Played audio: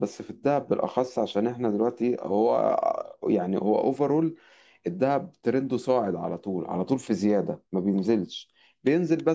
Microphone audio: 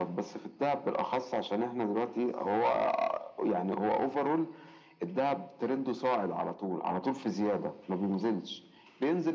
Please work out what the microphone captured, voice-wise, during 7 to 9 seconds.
echo only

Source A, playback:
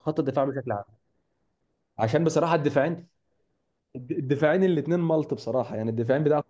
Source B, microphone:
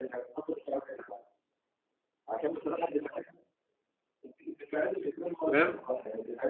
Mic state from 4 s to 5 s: echo only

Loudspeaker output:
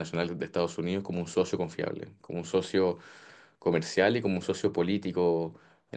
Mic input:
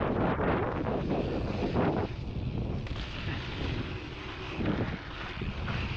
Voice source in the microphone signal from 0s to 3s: neither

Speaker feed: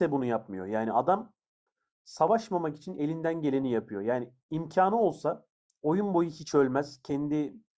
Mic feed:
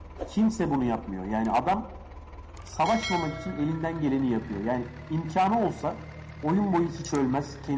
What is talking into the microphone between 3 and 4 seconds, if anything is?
echo only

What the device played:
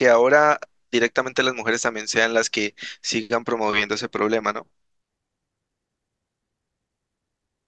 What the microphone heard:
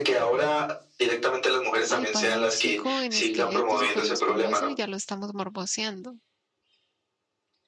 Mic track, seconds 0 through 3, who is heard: both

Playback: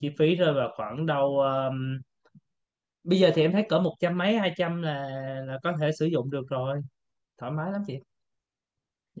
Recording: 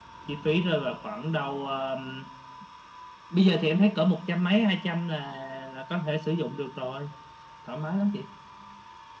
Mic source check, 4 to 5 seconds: echo only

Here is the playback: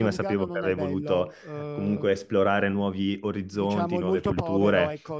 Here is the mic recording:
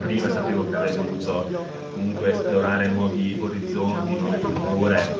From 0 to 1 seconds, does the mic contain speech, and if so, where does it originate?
both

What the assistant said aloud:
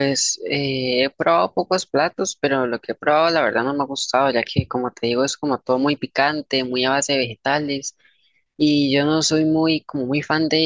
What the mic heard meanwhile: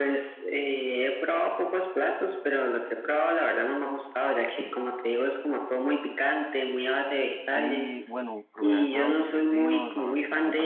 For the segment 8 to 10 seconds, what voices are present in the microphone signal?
both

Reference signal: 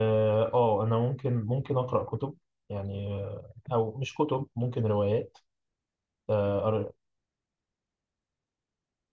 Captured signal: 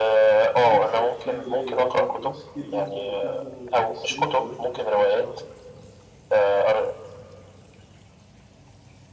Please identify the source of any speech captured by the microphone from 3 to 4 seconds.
both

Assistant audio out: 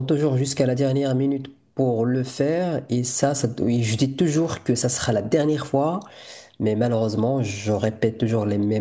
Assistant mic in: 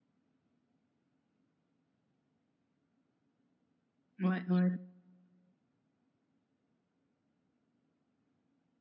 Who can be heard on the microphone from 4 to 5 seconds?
user only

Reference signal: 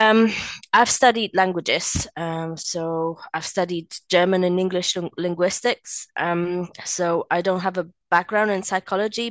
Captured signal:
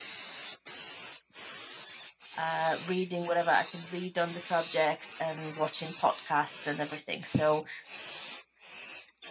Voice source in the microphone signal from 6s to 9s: user only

